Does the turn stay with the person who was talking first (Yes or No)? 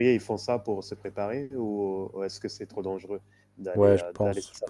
No